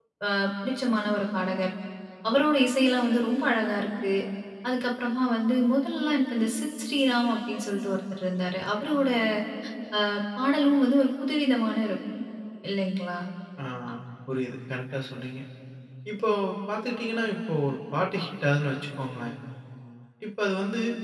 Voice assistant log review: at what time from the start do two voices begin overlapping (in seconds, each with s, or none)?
none